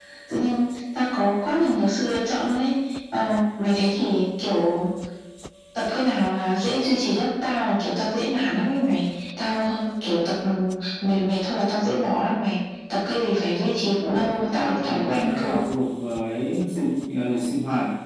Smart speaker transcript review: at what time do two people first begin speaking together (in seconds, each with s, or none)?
14.0 s